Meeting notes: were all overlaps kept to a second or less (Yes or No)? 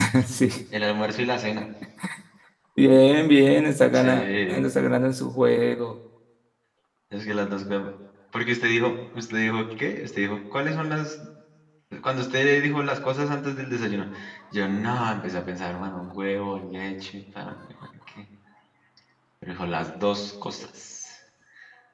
Yes